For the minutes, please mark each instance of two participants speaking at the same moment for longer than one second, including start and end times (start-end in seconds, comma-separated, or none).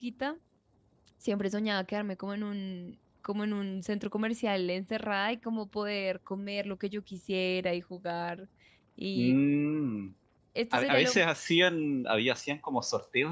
none